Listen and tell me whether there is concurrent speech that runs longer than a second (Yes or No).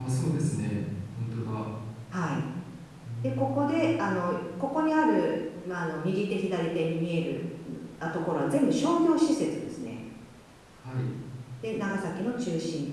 No